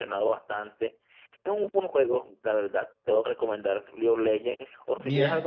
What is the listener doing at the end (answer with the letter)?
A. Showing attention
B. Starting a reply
A